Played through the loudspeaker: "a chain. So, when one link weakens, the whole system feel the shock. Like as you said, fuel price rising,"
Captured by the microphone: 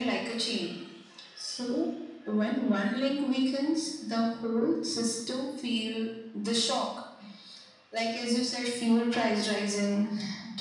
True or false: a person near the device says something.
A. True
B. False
B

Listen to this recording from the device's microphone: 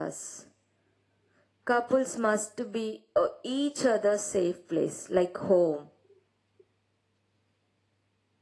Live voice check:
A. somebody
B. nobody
B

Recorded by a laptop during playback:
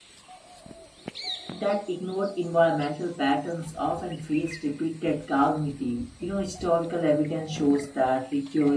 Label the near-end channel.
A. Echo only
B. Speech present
B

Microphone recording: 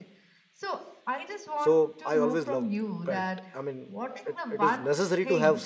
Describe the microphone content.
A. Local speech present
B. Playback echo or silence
A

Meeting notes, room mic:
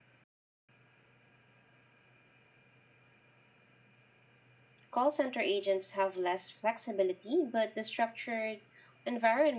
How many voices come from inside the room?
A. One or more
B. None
A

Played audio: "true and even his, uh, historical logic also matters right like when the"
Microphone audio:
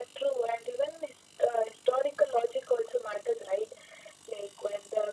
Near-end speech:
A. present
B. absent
B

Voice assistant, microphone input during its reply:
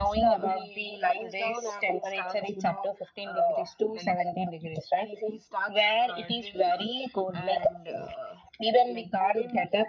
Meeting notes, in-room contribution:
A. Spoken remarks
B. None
B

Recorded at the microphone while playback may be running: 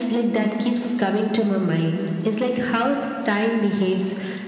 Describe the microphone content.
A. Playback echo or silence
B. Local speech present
A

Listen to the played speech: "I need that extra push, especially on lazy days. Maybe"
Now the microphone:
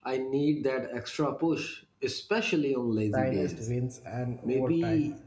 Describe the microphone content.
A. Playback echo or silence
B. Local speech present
B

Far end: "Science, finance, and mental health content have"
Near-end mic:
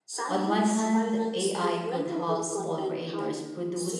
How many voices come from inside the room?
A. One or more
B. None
A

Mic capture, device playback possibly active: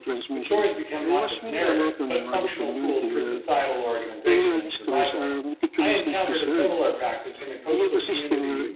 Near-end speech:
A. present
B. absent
A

